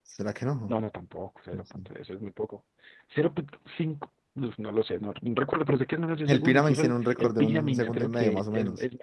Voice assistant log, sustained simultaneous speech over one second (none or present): present